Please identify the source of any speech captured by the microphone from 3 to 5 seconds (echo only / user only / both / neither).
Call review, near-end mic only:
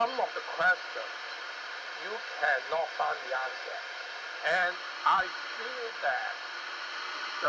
echo only